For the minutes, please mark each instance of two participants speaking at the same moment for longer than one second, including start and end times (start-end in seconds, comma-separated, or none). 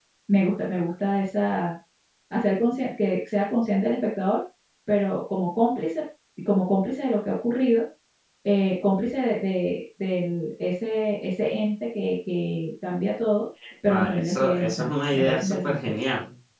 13.9-15.9